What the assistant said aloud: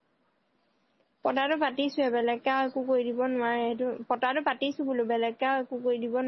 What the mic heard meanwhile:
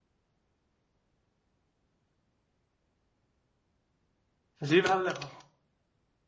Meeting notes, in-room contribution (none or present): present